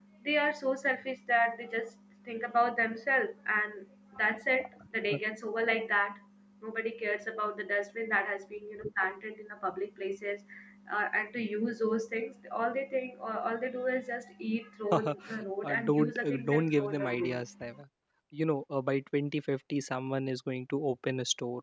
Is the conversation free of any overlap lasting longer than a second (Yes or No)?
No